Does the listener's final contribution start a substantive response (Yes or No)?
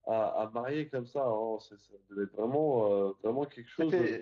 Yes